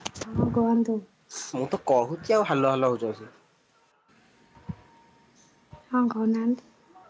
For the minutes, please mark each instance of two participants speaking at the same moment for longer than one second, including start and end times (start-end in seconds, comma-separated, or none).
none